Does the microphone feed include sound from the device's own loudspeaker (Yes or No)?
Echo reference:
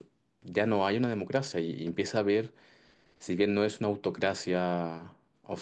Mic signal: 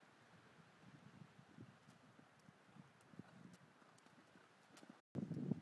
No